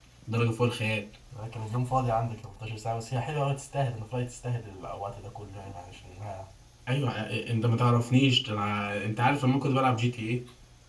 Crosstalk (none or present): none